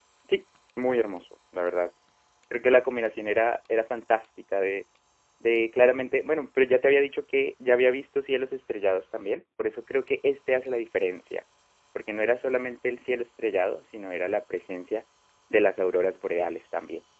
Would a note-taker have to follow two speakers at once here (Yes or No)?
No